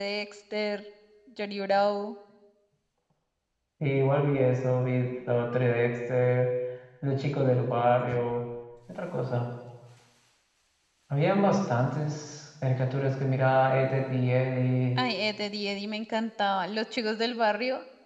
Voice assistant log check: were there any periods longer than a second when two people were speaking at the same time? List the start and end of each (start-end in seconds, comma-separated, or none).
none